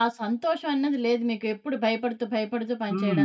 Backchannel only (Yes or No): No